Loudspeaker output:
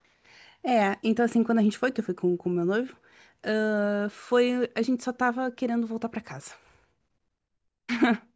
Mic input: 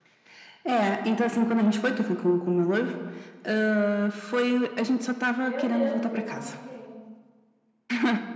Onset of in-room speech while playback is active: 5.4 s

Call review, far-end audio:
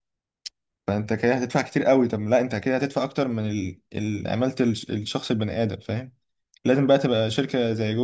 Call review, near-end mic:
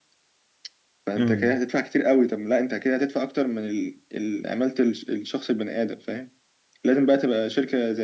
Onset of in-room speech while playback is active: 1.2 s

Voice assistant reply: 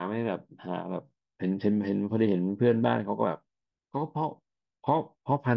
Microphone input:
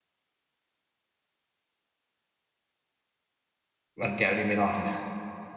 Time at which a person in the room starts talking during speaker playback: 4.0 s

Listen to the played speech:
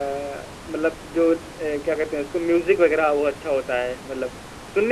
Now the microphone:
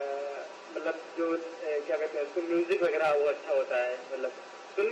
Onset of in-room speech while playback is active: none

